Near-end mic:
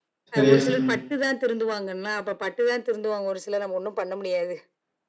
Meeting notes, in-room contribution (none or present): present